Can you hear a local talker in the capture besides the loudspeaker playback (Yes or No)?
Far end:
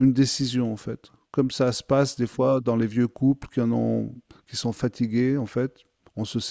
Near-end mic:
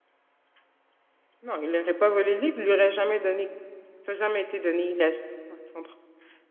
Yes